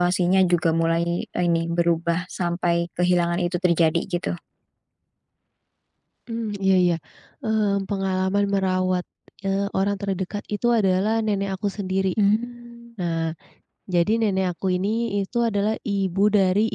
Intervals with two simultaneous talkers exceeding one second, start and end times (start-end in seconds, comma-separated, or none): none